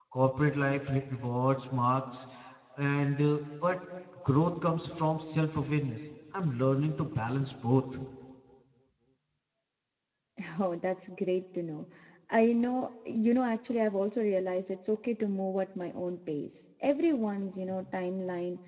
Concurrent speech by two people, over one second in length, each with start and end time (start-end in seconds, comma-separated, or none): none